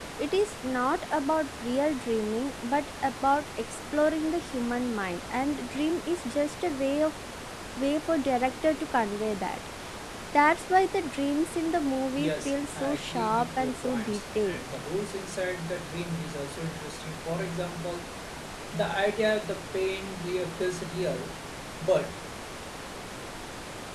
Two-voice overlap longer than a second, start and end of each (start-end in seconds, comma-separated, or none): 12.2-14.6